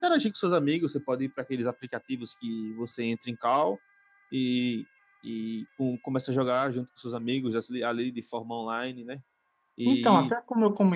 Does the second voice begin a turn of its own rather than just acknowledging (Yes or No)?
Yes